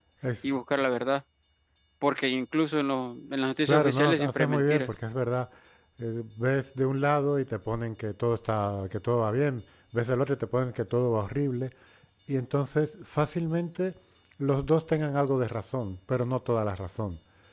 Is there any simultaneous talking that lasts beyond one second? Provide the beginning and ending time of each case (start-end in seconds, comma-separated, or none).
3.6-4.9